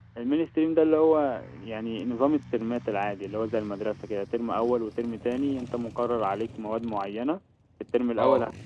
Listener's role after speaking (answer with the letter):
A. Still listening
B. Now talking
A